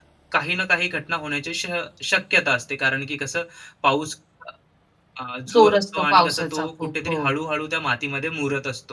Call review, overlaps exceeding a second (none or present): present